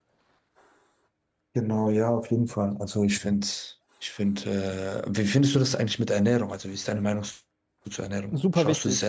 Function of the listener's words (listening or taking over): taking over